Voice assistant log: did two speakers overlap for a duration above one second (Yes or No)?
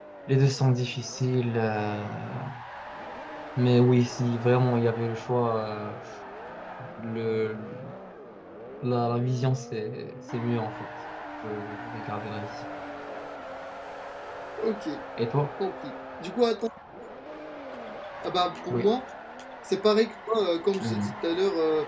No